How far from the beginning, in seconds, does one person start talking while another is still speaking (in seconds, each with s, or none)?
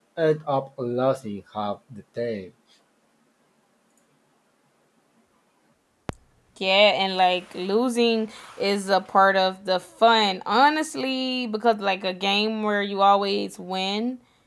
none